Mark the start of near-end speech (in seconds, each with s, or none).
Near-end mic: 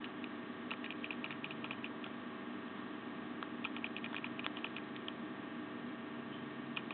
none